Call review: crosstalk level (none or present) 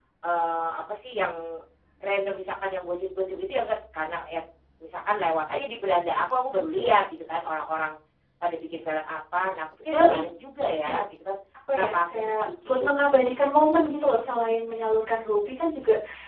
present